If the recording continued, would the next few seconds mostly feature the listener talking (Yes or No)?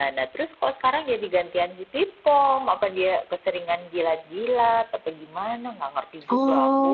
Yes